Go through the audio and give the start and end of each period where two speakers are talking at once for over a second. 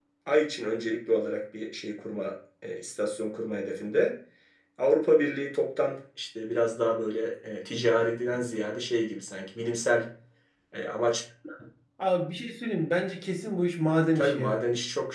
none

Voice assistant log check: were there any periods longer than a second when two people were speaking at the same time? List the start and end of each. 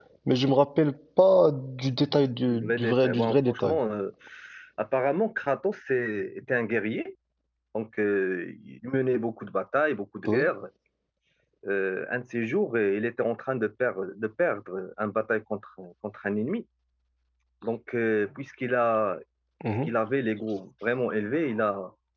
2.5-3.8

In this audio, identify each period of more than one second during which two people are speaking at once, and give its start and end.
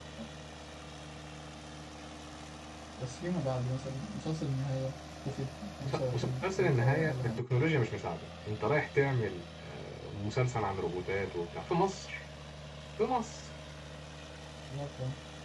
5.8-7.4

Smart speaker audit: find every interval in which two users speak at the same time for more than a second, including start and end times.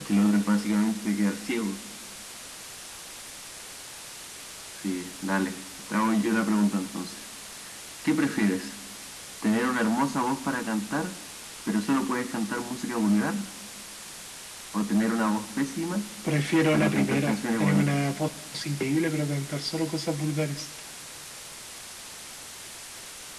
16.7-18.1

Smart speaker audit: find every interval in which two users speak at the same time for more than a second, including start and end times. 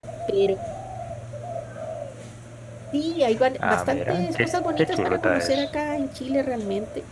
3.6-5.7

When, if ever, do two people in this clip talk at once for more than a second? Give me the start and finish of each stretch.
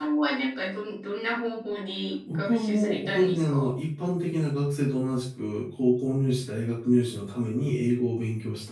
2.3-3.7

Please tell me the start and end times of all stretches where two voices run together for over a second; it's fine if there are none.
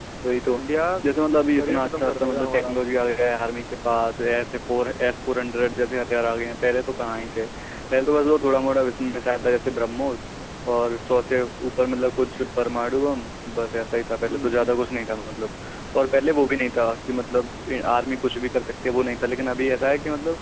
1.6-2.8

